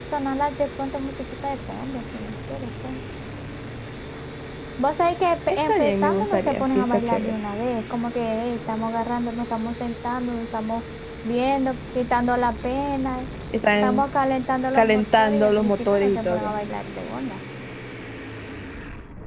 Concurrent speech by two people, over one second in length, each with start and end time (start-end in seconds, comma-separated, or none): 5.5-7.3, 14.7-16.5